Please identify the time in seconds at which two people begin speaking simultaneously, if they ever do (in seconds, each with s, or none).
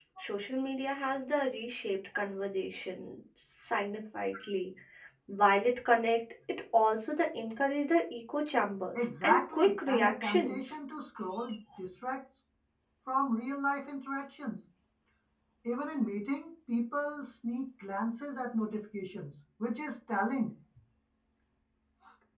8.9 s